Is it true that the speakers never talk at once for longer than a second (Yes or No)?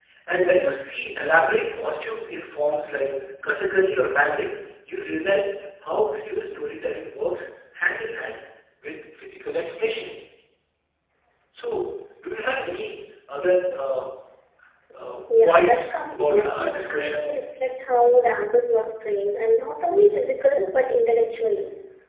No